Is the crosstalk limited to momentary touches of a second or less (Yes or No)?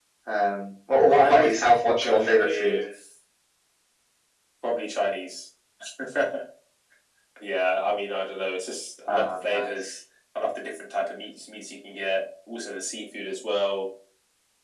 No